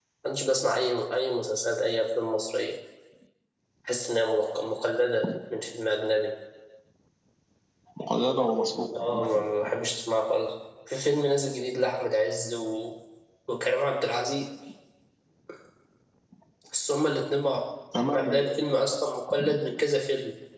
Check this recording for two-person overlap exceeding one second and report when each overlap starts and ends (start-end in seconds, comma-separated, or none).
none